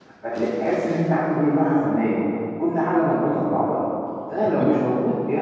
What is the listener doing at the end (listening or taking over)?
listening